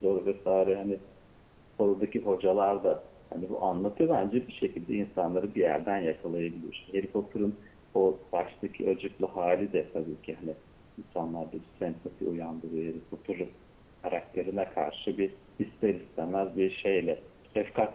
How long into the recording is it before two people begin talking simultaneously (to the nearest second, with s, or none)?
none